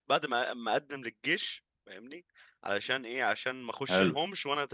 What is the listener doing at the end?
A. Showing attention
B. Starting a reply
A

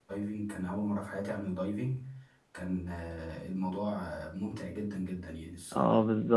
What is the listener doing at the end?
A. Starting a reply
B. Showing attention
A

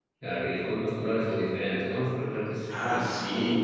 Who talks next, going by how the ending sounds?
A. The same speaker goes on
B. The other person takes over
B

